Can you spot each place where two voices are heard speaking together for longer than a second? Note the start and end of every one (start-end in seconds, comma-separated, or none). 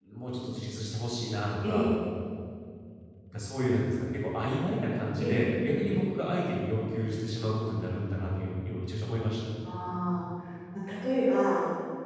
none